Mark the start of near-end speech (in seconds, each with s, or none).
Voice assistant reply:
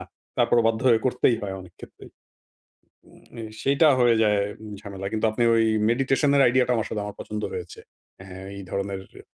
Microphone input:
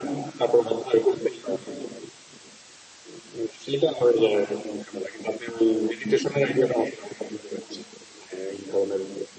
none